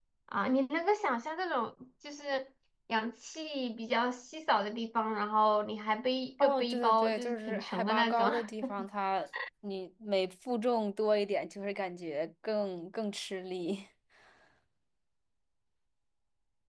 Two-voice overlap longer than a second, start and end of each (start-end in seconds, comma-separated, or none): 6.4-8.3